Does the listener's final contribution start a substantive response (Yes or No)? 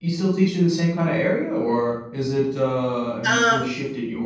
No